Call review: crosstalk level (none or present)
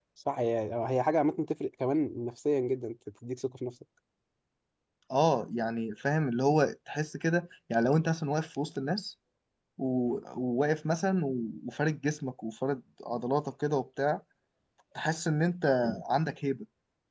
none